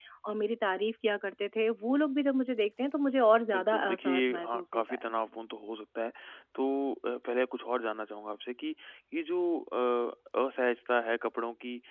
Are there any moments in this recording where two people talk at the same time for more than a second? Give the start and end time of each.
3.5-5.0

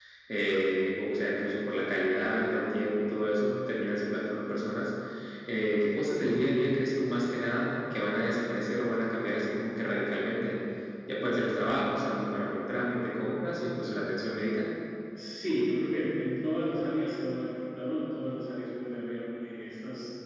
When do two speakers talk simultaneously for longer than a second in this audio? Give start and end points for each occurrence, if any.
none

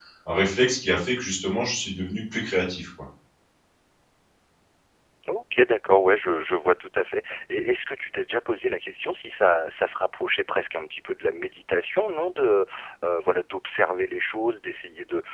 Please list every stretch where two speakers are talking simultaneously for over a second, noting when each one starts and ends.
none

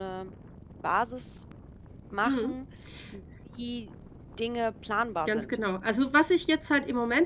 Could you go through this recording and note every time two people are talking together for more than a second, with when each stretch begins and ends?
none

